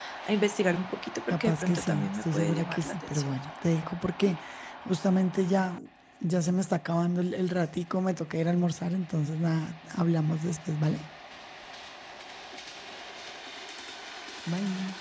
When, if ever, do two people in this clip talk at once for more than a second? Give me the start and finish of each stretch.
1.3-3.3

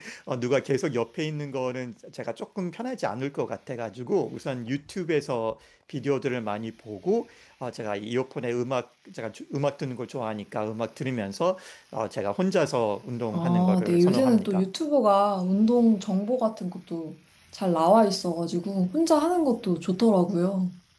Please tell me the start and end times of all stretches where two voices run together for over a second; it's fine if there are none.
13.3-14.6

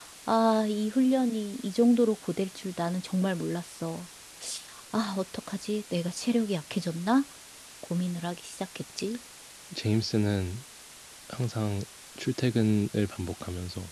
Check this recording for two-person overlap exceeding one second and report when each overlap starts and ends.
none

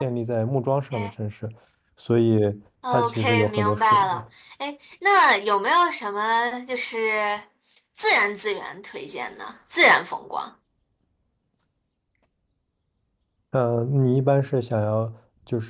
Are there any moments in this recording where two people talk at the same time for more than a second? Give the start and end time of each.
2.9-4.2

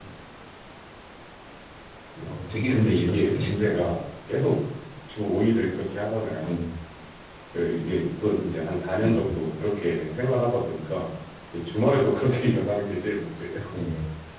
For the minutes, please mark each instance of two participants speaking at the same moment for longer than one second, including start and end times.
2.7-3.9

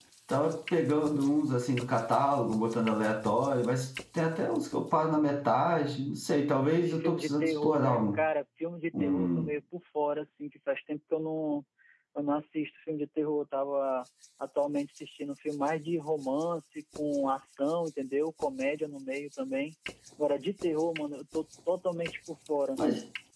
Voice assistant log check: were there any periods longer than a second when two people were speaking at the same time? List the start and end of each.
6.8-8.2

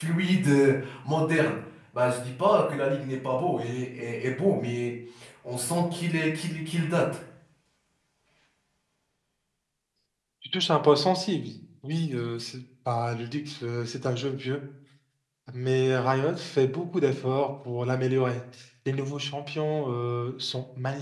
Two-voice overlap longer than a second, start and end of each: none

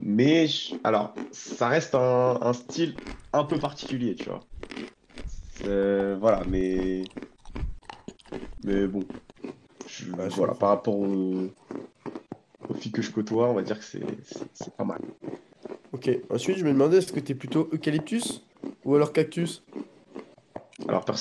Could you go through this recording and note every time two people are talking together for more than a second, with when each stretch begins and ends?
none

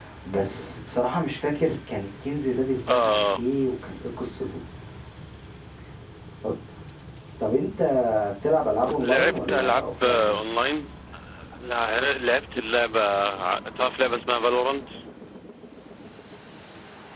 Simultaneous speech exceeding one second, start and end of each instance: 9.0-10.4

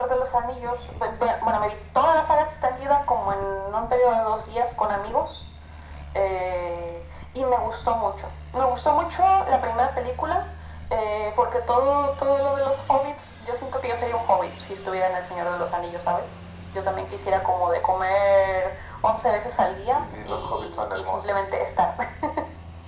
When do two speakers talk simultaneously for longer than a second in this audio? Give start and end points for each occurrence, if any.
19.9-21.2

